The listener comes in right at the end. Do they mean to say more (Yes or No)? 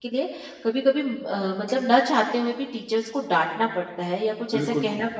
Yes